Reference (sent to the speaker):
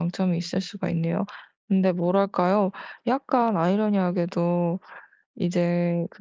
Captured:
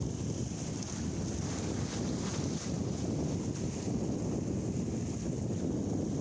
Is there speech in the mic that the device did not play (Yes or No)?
No